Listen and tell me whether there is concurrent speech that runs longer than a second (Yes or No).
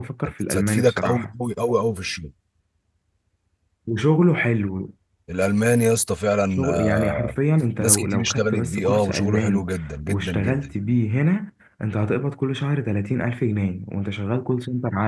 Yes